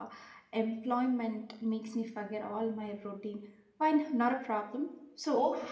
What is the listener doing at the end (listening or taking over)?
taking over